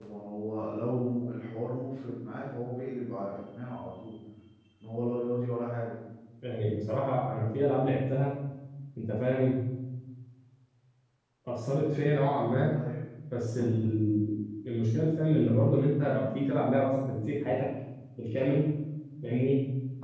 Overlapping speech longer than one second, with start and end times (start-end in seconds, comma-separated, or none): none